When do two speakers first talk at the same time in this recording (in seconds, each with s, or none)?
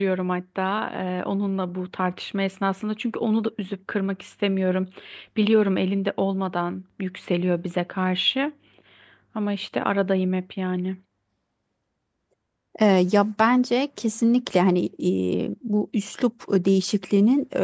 none